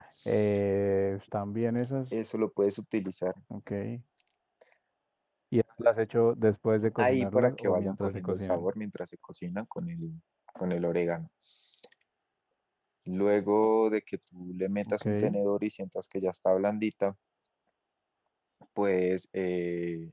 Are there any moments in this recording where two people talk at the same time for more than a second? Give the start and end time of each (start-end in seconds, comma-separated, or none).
7.0-8.7